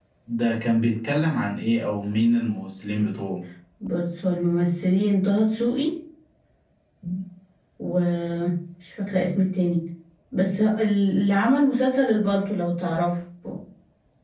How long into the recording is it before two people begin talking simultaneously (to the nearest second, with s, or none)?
none